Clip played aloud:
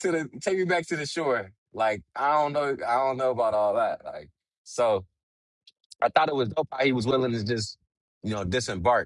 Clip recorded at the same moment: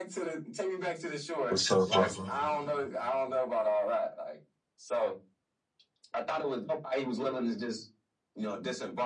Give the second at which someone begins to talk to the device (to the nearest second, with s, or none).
1 s